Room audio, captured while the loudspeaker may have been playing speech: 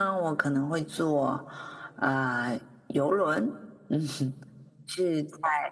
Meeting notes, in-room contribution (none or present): none